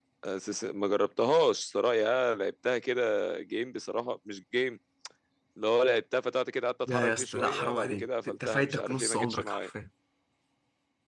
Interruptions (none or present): present